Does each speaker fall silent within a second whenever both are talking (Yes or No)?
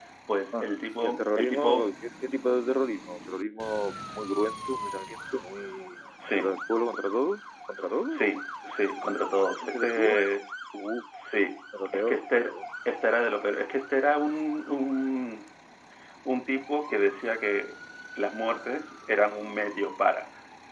No